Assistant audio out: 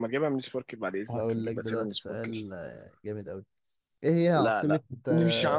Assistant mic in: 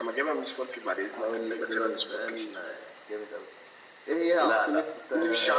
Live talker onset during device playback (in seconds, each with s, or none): none